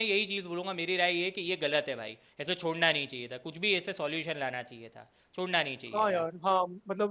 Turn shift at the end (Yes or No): Yes